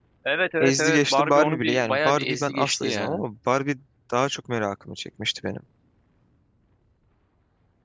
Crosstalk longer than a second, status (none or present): present